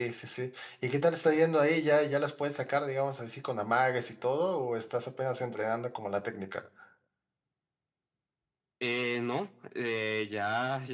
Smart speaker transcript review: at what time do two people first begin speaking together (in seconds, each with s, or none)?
none